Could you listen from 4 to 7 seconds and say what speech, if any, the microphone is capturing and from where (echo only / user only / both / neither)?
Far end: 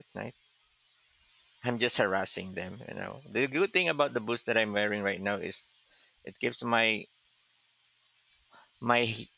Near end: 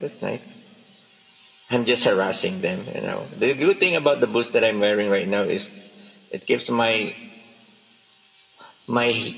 echo only